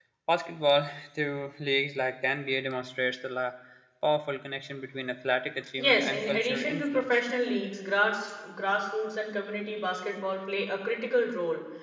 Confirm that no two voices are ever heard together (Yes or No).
No